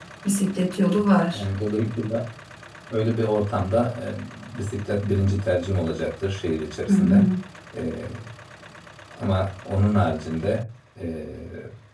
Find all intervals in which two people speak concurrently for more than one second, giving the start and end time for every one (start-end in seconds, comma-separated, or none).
none